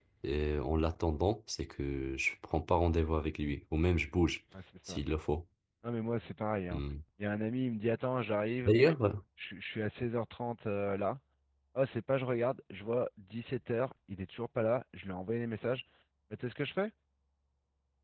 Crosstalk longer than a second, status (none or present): none